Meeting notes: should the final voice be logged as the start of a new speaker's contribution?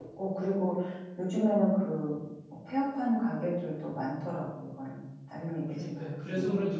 Yes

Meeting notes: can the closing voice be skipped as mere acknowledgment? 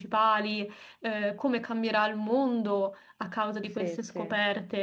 Yes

